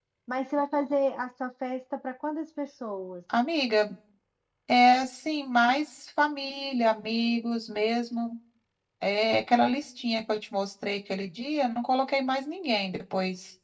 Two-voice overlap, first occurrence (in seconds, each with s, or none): none